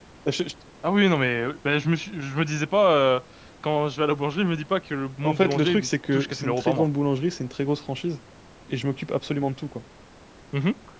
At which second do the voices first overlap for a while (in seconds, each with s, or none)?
5.2 s